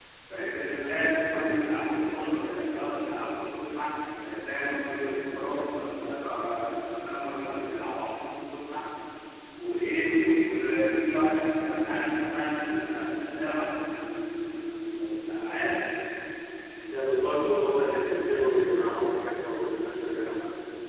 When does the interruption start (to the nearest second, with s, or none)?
none